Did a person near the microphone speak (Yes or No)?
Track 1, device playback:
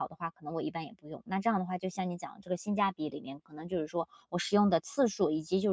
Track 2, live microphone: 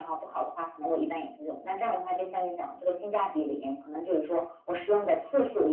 No